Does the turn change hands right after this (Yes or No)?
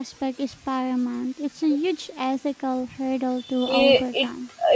Yes